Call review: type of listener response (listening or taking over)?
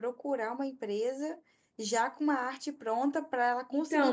taking over